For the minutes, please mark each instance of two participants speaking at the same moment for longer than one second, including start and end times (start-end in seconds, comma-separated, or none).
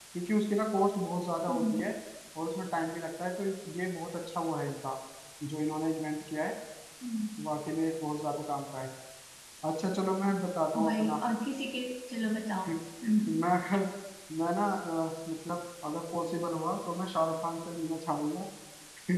none